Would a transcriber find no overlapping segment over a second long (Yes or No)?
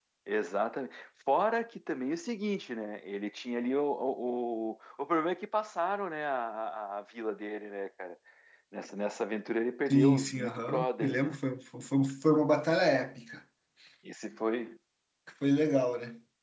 No